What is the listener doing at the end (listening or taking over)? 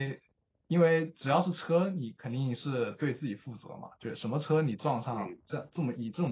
listening